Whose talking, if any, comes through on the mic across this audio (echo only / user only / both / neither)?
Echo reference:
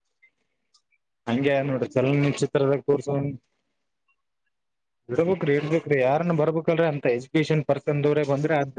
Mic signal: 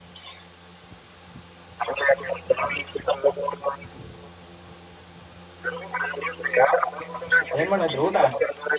both